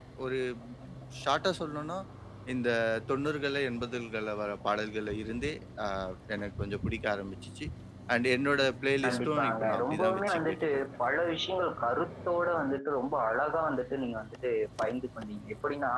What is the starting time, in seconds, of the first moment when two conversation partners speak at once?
9.0 s

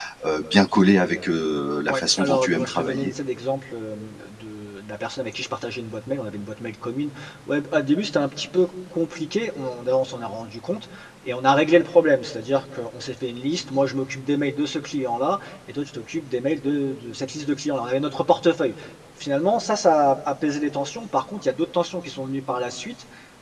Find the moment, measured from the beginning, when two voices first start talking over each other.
1.9 s

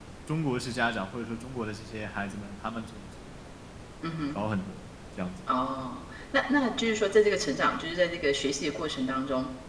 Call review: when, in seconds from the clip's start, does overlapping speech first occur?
none

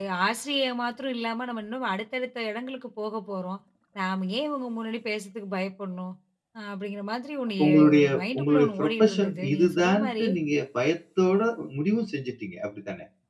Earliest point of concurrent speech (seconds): 7.6 s

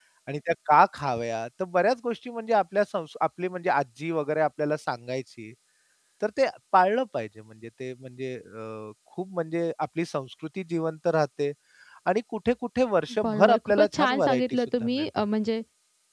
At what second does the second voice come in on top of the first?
13.2 s

